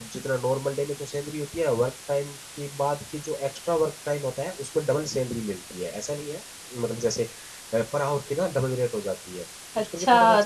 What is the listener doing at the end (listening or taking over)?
taking over